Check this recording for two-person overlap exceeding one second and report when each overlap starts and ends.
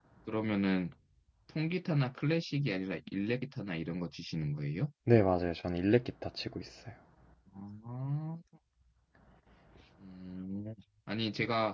none

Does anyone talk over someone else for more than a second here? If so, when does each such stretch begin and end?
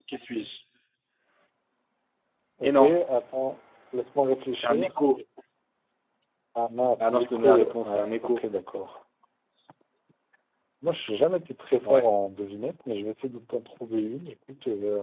7.0-8.4

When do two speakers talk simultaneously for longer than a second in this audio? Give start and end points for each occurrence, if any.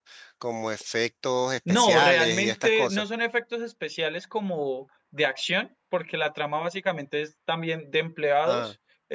1.7-3.0

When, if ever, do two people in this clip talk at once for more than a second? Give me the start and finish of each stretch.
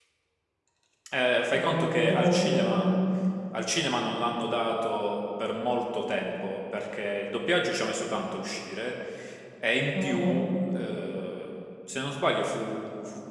1.5-2.8

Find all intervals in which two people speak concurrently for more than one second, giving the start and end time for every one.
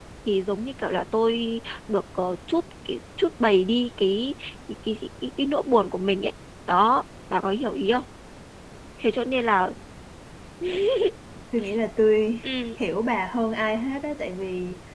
none

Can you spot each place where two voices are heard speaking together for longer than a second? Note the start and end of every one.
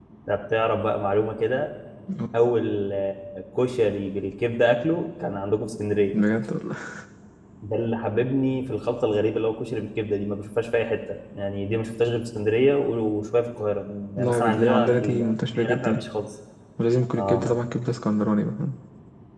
14.2-16.0

